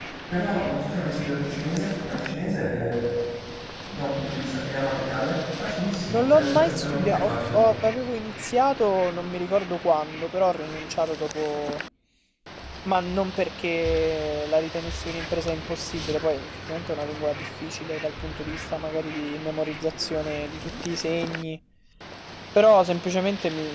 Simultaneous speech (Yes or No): Yes